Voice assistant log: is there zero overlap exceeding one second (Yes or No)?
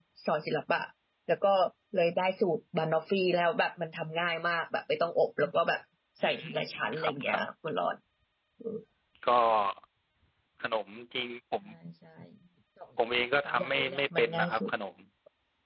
No